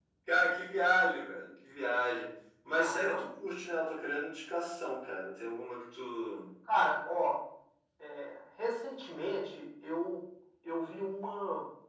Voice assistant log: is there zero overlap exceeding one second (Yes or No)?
Yes